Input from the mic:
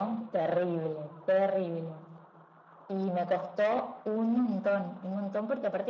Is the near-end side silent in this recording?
Yes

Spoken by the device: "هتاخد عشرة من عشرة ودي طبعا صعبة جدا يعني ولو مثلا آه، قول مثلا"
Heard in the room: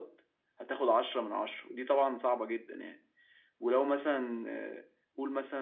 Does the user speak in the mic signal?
No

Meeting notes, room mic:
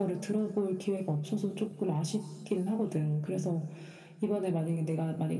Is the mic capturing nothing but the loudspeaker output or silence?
Yes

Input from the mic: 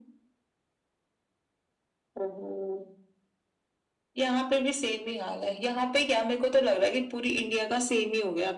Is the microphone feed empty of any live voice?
Yes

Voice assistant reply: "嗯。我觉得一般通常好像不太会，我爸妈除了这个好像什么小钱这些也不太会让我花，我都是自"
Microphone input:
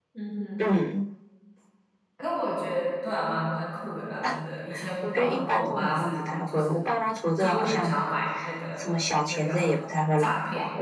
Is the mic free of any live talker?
No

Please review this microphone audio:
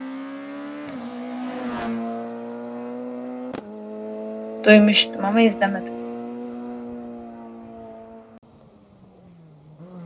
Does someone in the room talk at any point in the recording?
Yes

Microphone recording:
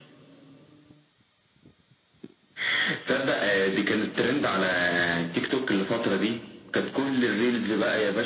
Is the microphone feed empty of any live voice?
Yes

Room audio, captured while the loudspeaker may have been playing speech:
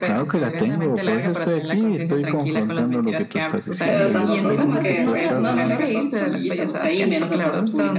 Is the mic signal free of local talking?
No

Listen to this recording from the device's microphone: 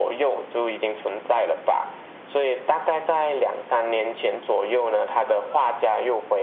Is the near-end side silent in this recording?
Yes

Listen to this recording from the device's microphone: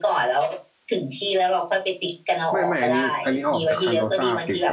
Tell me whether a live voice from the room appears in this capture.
Yes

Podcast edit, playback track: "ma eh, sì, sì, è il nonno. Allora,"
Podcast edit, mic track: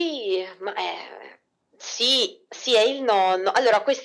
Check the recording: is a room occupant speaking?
No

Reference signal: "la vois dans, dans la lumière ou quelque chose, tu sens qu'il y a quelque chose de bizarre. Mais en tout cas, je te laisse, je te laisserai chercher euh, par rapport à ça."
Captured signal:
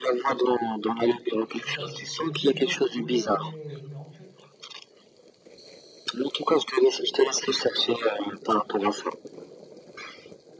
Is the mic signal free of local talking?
No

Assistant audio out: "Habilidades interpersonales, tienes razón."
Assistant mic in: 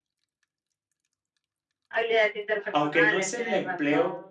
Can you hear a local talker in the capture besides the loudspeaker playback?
Yes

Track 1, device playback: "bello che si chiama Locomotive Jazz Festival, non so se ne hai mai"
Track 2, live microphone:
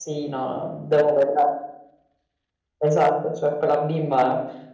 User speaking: Yes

